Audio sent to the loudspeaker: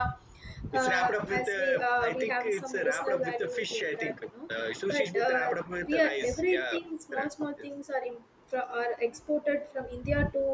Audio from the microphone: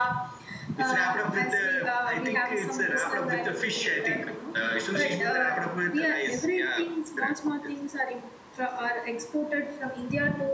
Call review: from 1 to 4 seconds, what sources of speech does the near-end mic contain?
echo only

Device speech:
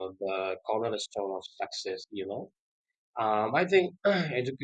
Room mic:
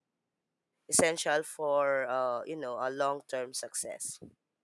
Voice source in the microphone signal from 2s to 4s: user only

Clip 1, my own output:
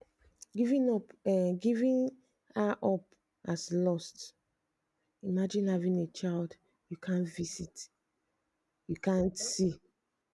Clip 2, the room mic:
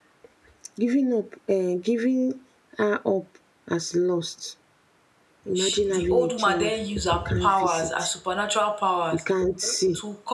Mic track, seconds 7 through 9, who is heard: both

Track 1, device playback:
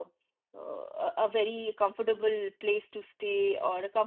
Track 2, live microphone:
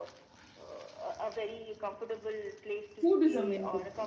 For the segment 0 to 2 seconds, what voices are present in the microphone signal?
echo only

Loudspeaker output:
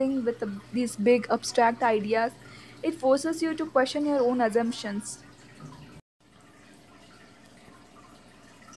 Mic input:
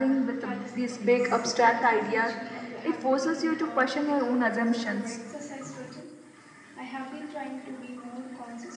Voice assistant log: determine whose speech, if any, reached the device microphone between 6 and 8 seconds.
user only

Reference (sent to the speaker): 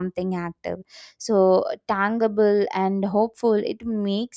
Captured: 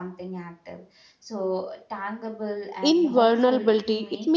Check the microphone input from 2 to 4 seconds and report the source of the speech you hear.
both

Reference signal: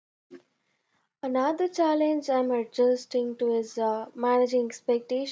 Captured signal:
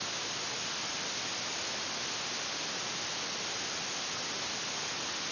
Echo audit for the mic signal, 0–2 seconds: neither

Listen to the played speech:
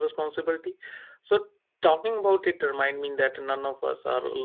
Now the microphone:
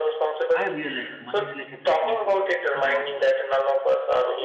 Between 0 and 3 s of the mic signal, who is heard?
both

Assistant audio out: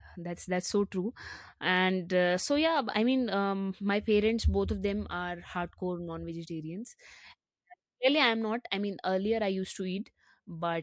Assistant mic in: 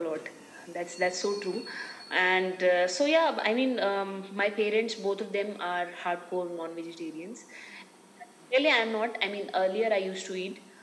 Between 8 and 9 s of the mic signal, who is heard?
echo only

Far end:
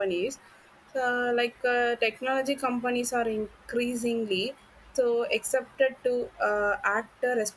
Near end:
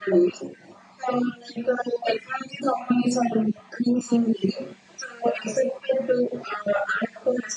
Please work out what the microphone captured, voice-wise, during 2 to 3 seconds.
echo only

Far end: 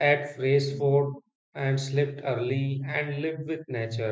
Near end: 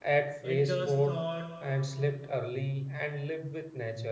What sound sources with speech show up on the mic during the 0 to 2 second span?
both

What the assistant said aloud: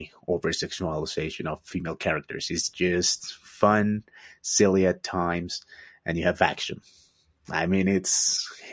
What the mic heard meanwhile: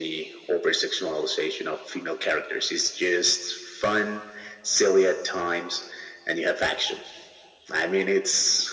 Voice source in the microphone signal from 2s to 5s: echo only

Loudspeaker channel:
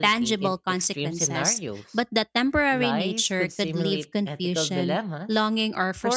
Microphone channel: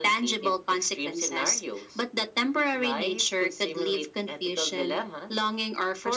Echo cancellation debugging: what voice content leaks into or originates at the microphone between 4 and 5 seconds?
echo only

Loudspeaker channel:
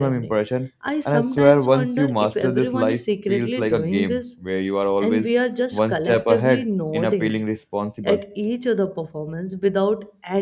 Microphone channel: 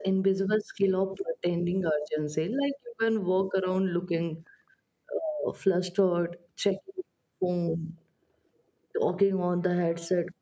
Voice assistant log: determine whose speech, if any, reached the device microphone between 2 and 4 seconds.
user only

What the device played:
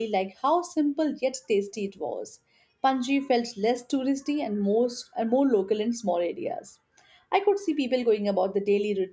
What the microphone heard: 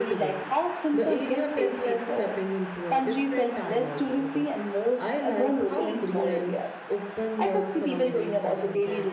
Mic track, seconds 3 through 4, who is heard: both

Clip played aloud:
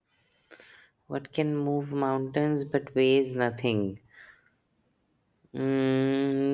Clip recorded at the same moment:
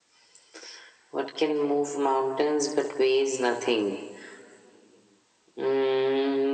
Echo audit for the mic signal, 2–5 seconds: echo only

